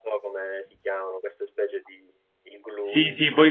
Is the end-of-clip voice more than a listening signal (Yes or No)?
Yes